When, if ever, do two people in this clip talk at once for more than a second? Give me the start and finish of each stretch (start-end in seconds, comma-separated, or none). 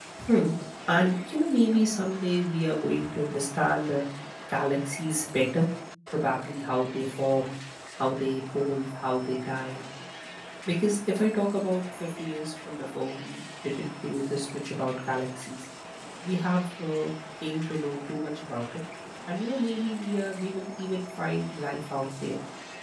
none